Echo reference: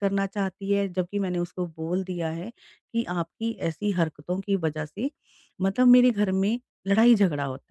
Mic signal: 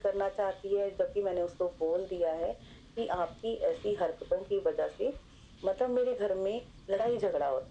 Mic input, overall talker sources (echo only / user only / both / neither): echo only